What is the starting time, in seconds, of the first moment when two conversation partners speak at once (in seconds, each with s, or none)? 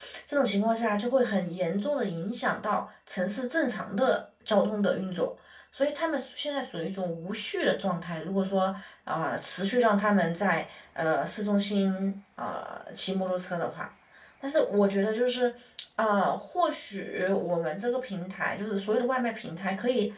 none